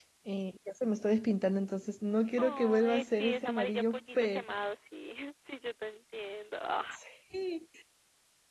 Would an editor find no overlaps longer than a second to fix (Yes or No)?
No